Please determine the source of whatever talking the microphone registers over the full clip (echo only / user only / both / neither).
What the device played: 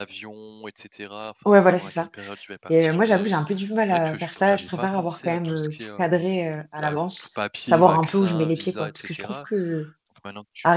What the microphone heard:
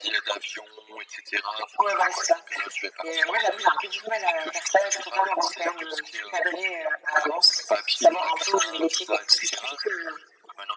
echo only